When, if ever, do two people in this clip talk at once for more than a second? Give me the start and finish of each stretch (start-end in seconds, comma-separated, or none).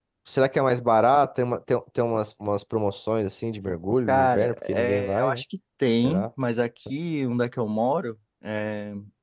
4.1-5.4